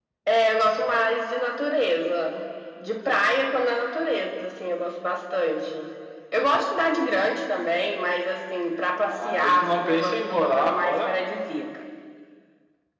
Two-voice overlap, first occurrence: 9.1 s

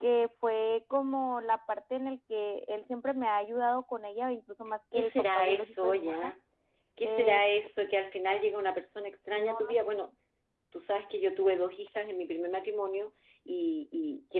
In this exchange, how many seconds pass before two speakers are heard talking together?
4.9 s

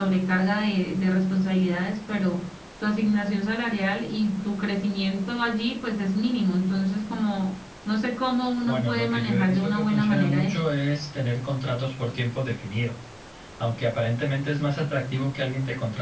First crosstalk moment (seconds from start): 8.7 s

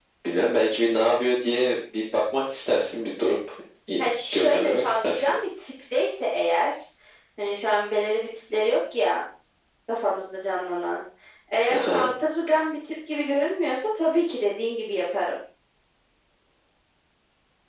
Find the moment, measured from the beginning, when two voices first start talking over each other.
4.0 s

